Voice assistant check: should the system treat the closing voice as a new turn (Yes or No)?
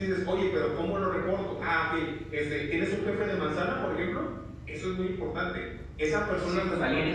Yes